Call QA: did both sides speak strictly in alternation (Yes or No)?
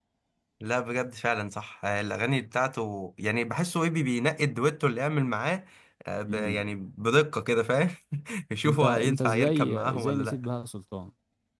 No